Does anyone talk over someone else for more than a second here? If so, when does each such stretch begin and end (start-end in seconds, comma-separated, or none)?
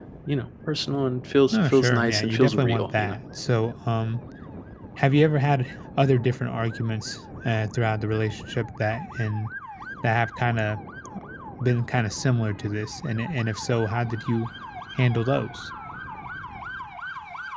1.5-3.1